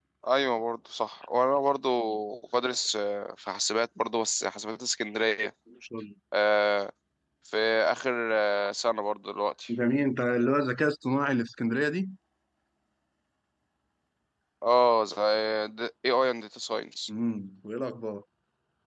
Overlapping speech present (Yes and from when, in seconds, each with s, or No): No